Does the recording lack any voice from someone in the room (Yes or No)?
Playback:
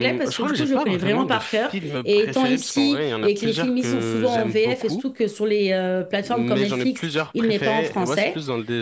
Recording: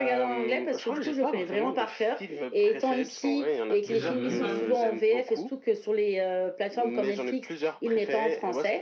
No